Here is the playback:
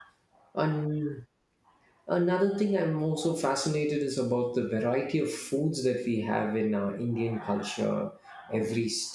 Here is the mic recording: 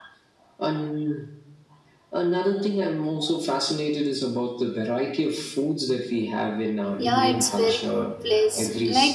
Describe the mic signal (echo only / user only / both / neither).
both